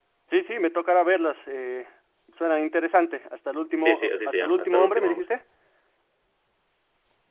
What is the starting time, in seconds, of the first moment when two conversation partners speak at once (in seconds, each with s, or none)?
3.8 s